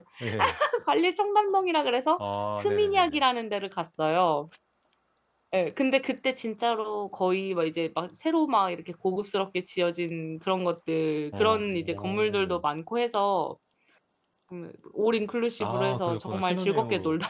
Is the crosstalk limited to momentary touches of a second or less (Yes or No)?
No